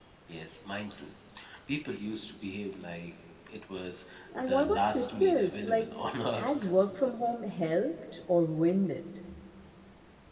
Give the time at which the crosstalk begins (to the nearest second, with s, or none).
4 s